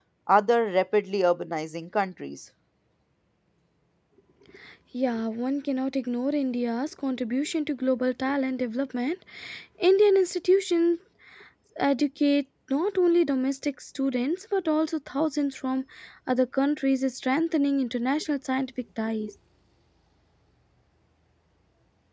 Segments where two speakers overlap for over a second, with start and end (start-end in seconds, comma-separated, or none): none